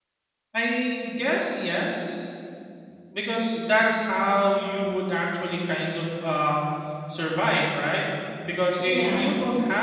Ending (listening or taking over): listening